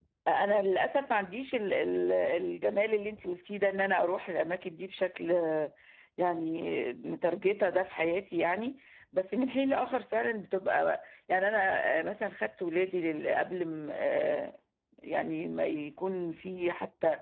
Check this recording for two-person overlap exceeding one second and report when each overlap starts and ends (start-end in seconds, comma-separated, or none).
none